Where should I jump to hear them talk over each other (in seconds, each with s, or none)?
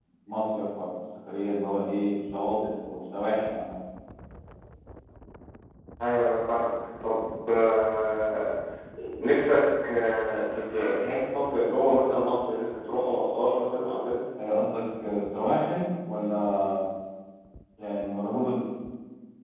none